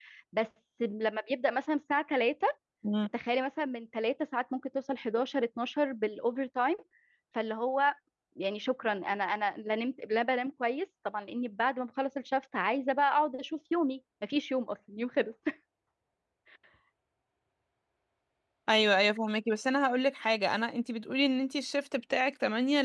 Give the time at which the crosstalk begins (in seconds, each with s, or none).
none